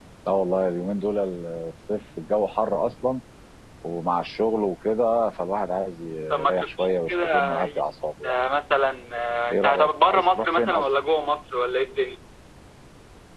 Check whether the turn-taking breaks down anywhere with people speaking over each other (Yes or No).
Yes